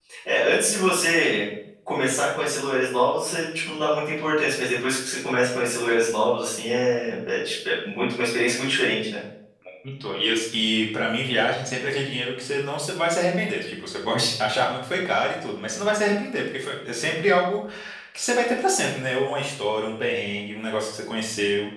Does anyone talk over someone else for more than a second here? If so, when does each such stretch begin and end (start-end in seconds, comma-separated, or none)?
none